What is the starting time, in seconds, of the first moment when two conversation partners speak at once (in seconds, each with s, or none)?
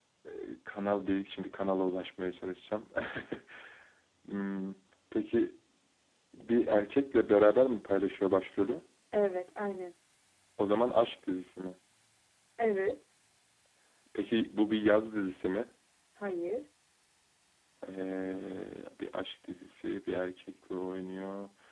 none